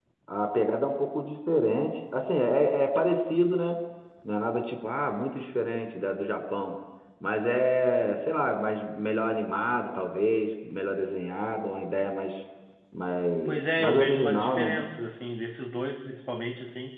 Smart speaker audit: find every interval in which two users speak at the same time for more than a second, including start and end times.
13.4-14.8

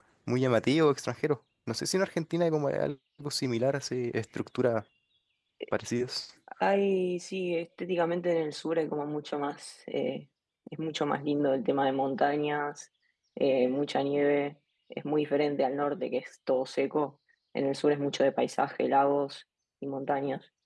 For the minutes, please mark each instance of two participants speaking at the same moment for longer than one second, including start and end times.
none

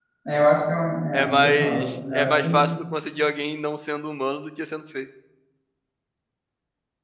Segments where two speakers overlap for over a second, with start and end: 1.1-2.5

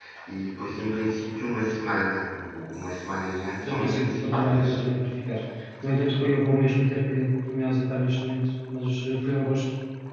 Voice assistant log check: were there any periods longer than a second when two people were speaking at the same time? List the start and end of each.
3.6-4.8

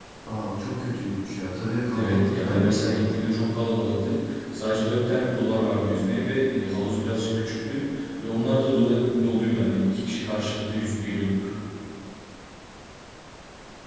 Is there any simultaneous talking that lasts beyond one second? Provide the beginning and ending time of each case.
1.9-3.2

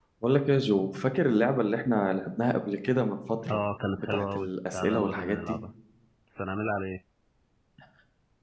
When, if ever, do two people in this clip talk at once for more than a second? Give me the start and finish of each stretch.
4.0-5.6

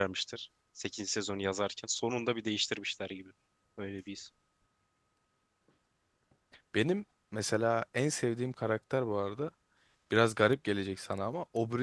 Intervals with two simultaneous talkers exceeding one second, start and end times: none

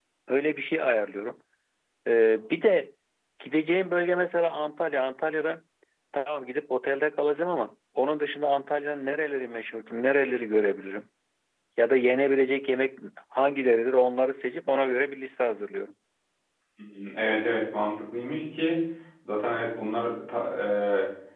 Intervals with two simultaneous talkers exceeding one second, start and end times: none

